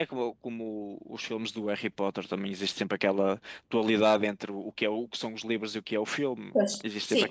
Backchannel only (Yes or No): No